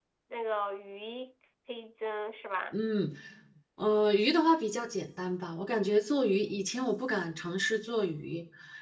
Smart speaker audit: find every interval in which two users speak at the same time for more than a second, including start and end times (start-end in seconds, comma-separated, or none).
none